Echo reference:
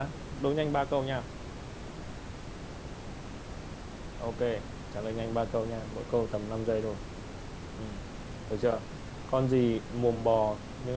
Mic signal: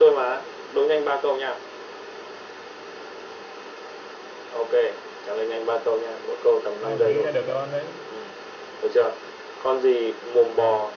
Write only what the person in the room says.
ai mà nghĩ ra được đáp án đấy

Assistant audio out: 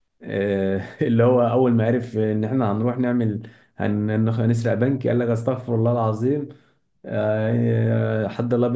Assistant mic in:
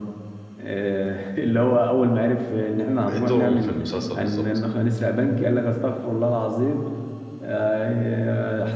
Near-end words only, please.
ايه دورهم في المسلسل بالظبط

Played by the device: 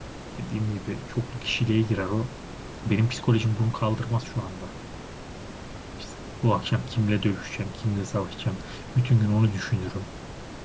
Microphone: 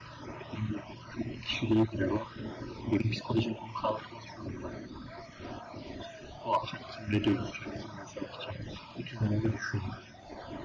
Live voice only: none

